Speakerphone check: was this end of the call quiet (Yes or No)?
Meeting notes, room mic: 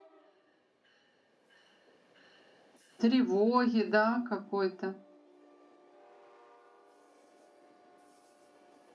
No